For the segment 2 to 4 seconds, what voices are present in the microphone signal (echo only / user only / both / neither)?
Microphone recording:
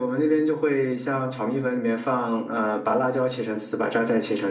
echo only